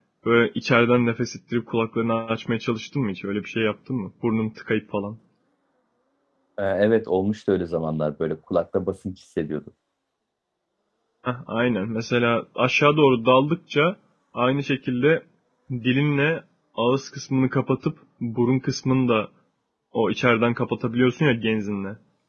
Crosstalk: none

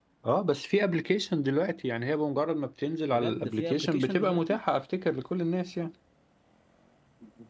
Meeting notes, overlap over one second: present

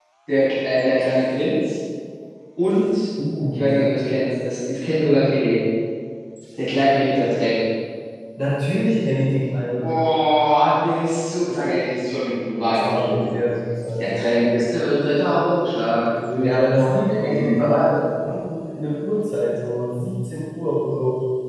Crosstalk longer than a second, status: present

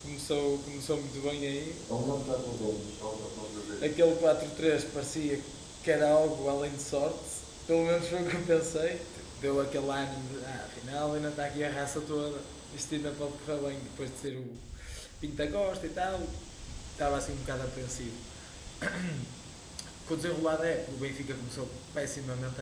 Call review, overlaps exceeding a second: none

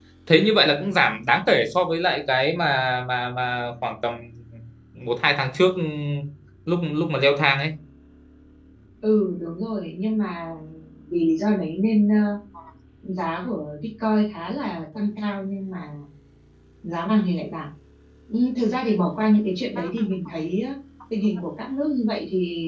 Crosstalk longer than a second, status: none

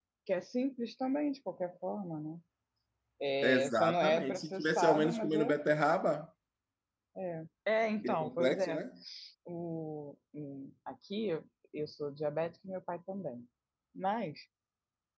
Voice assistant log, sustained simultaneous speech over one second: present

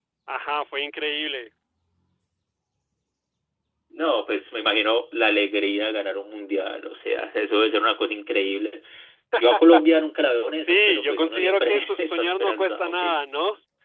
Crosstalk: present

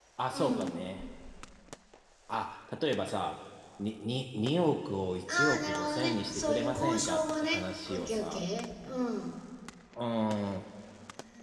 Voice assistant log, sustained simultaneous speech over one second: present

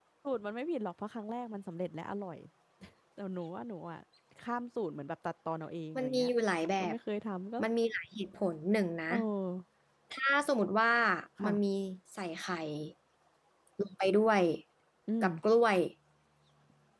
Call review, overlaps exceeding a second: none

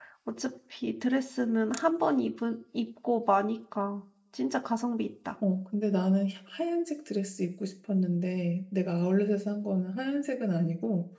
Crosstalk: none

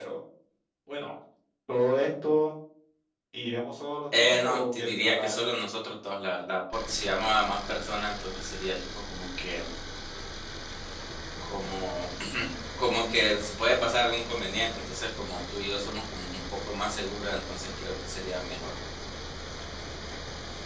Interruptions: present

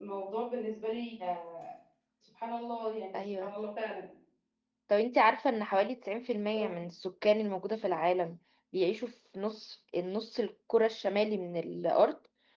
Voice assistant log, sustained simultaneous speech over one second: none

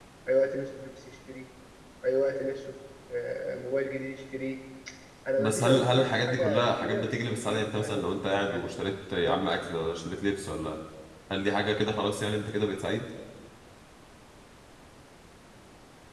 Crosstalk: present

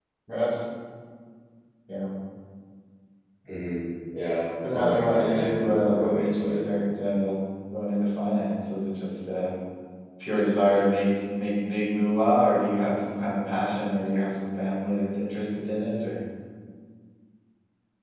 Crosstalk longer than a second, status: present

